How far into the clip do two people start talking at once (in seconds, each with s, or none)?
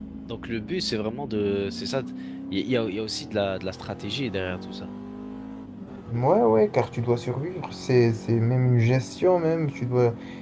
none